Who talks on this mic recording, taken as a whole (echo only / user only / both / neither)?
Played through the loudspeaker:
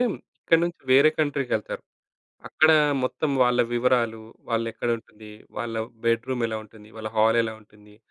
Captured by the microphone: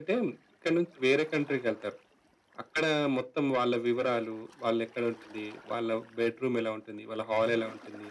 echo only